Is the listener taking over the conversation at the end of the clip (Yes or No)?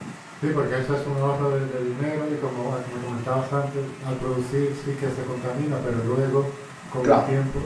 Yes